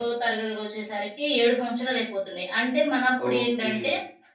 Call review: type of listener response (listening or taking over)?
listening